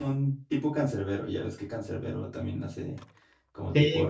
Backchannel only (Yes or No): No